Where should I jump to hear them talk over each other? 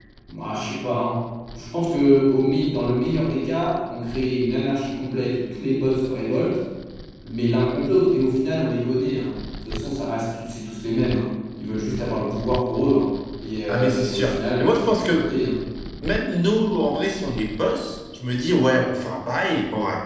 13.7 s

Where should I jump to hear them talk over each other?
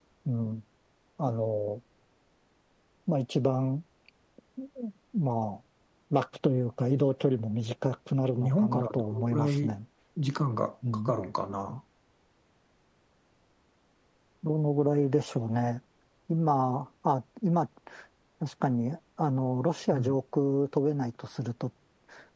8.4 s

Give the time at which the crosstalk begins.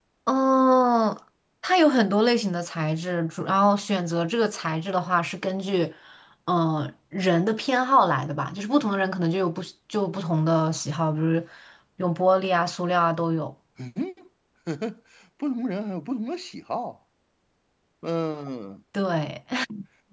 none

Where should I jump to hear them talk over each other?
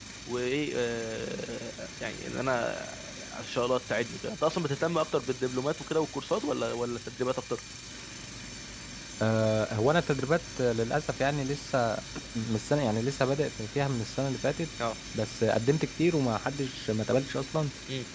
none

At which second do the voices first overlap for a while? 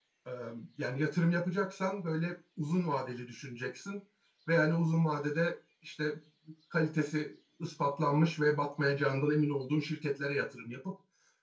none

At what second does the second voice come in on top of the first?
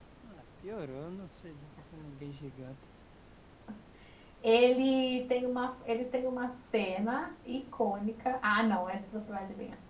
none

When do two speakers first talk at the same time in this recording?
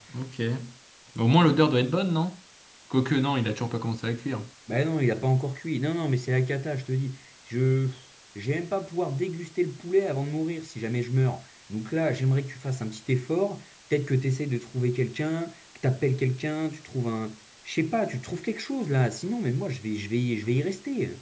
none

